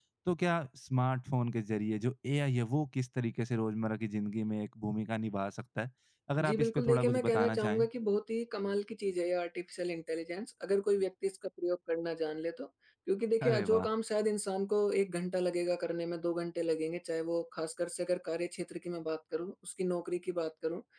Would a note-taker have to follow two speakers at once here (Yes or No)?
Yes